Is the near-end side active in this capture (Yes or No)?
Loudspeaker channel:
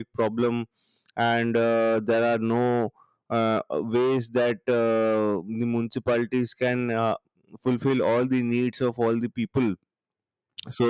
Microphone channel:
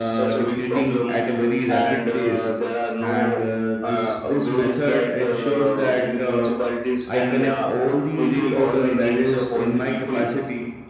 Yes